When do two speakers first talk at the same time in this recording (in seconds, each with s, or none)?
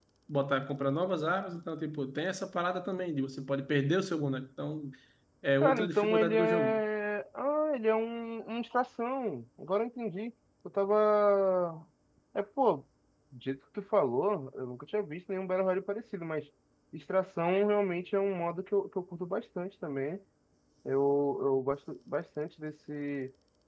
5.6 s